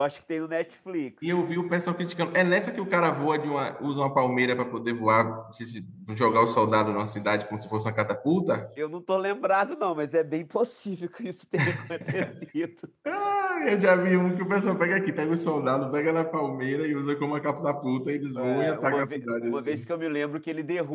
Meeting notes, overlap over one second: present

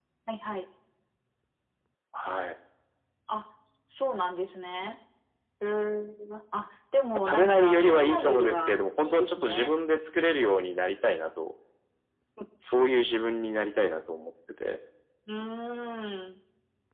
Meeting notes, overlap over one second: present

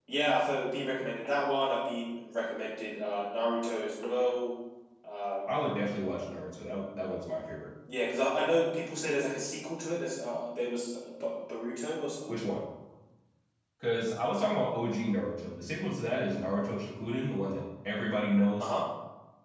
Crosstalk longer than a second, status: none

